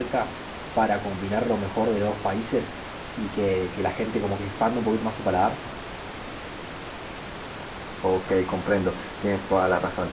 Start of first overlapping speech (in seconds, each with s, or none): none